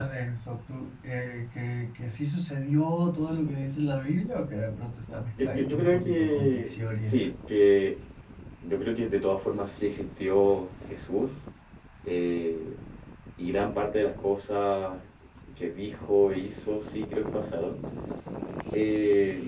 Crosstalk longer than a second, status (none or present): present